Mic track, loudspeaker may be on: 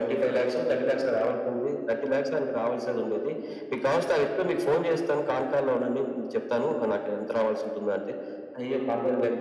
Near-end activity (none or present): none